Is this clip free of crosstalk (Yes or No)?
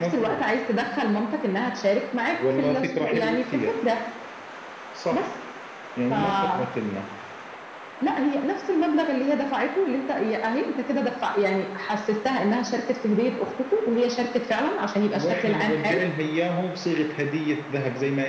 No